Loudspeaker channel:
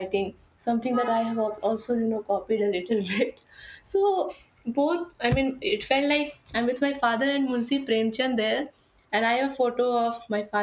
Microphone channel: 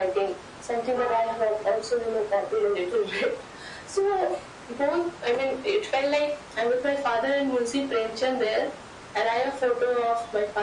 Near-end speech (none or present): none